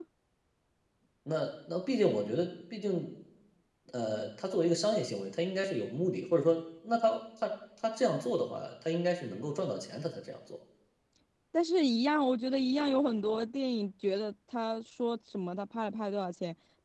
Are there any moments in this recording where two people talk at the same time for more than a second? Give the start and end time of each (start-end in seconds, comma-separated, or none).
none